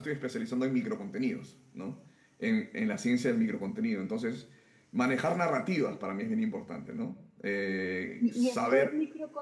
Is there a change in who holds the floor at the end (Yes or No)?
Yes